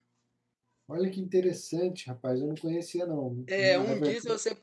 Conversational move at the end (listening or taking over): taking over